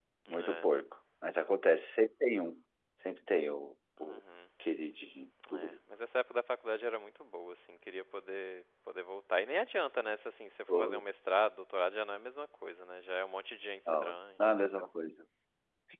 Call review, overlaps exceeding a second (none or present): none